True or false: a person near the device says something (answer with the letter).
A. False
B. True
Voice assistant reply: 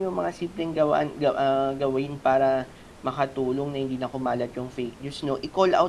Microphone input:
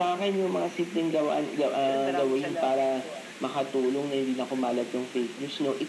B